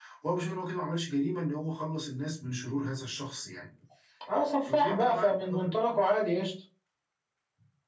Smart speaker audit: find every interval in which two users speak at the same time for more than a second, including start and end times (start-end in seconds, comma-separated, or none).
4.6-6.0